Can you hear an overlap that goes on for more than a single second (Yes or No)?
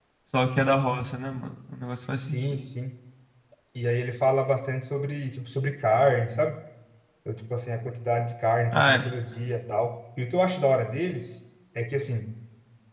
No